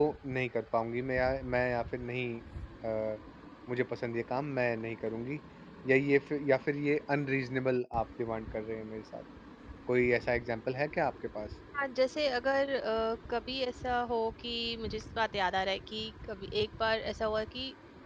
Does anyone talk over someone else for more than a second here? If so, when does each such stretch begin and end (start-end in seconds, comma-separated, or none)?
none